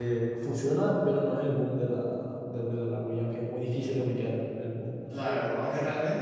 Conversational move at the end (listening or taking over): taking over